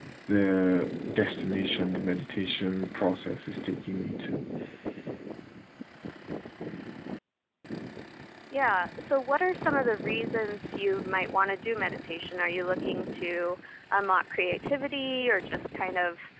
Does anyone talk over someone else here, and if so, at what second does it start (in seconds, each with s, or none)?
none